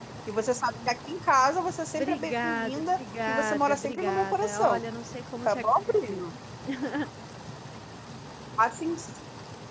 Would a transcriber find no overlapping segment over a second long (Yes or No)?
No